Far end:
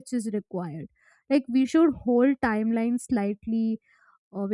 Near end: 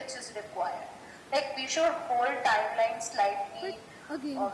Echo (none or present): present